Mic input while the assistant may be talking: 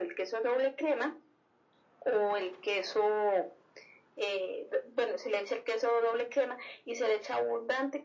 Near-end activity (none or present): none